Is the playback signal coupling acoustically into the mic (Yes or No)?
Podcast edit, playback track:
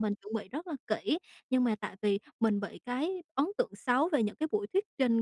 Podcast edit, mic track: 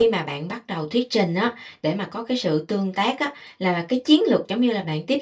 No